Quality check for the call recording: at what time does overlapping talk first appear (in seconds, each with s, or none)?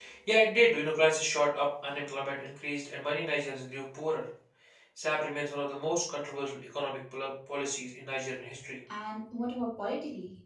none